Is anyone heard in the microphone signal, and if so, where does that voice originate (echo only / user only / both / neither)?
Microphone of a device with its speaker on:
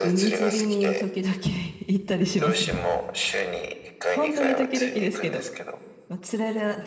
both